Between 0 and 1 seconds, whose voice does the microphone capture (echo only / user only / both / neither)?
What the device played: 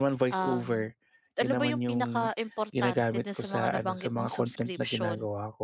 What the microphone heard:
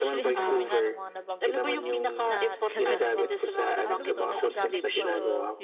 both